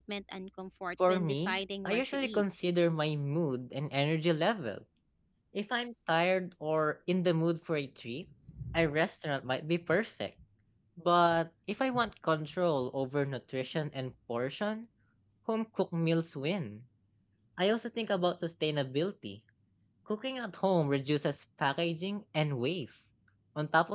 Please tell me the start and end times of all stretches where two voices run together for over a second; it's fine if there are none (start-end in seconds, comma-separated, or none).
1.1-2.4